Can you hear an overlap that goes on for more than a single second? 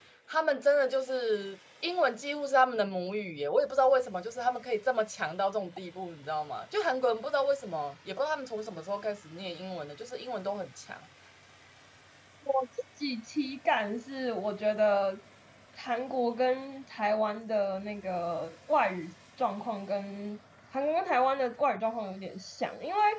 No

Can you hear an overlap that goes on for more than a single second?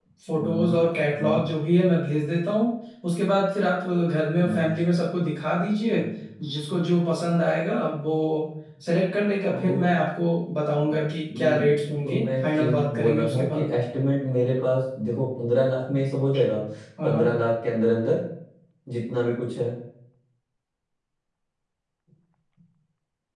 Yes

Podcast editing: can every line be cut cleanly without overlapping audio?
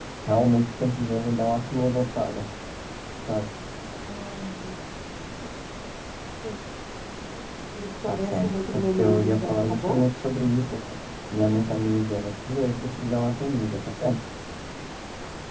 No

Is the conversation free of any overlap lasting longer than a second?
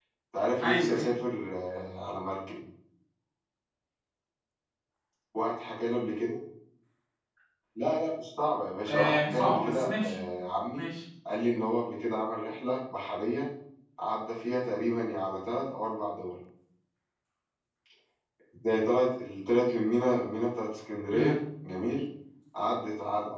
No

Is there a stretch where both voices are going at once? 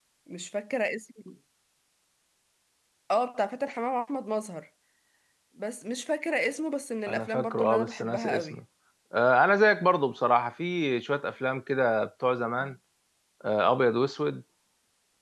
Yes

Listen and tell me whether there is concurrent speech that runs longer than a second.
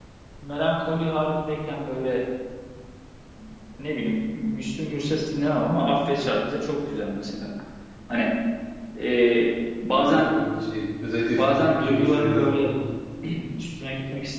Yes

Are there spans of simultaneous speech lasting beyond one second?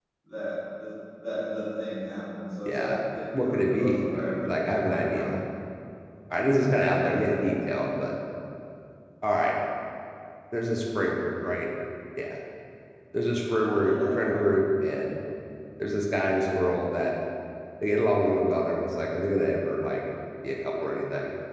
Yes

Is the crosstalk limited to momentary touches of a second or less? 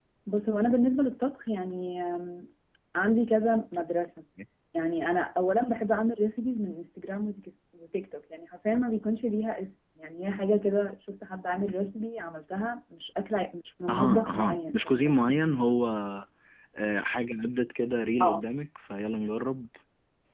No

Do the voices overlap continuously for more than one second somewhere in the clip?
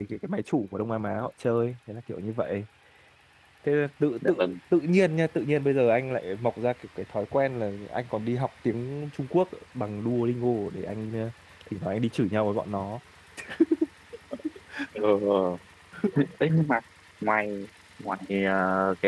No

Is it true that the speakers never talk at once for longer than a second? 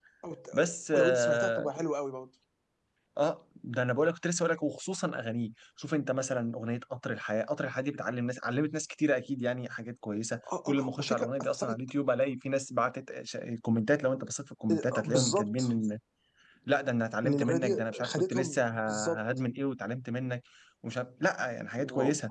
No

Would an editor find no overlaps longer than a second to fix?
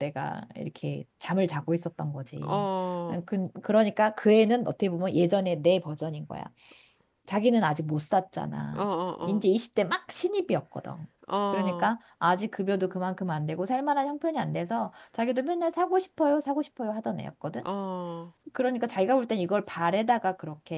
Yes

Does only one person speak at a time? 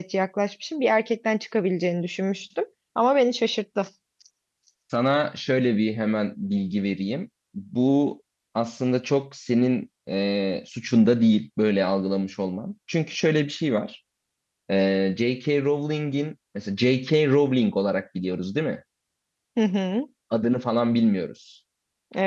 Yes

